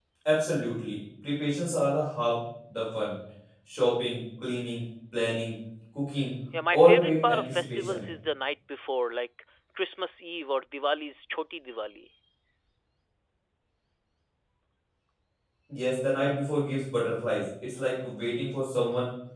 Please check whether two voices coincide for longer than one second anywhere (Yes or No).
Yes